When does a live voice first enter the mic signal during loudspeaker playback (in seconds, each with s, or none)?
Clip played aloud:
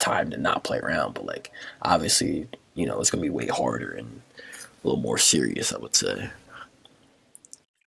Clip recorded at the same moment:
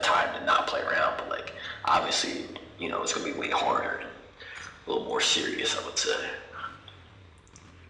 none